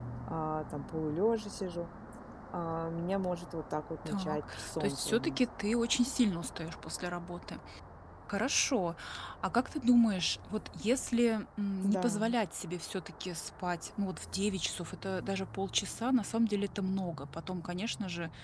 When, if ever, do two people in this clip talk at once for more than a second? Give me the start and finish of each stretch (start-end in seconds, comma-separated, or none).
4.1-5.4